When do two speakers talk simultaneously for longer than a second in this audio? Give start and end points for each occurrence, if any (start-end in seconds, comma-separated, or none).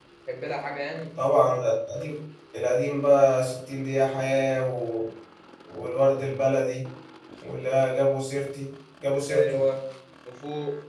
none